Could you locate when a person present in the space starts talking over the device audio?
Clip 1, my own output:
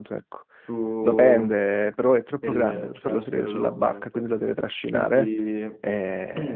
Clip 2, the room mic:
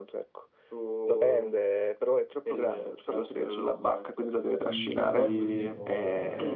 4.5 s

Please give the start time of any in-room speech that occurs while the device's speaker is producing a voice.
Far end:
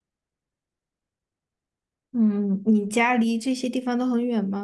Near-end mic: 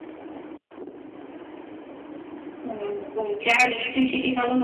none

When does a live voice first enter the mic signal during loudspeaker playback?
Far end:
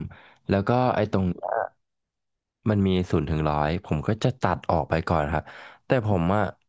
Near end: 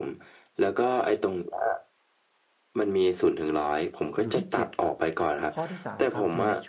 4.2 s

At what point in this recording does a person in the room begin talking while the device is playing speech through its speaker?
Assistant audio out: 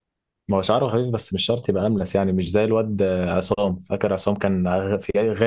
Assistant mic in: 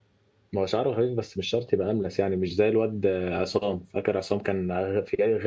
none

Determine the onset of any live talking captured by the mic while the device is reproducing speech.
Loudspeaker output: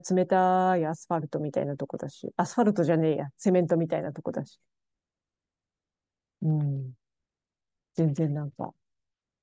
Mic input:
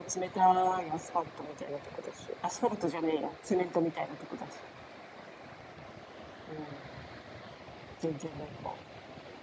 none

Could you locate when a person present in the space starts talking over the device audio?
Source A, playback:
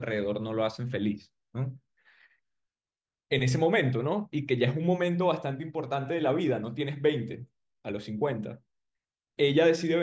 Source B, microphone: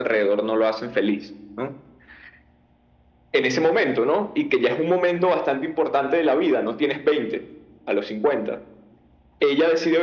none

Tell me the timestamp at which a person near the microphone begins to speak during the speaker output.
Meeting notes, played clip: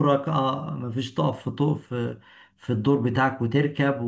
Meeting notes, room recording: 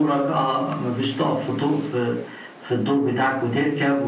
none

